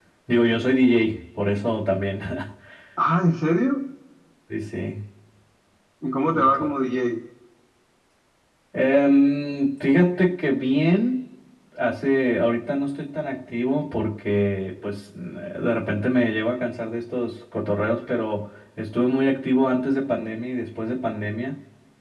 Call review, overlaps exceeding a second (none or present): none